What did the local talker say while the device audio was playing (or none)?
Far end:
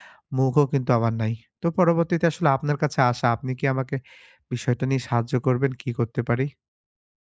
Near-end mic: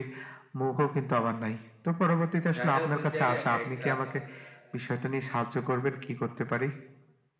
জায়গায় বে জায়গায় একেকটা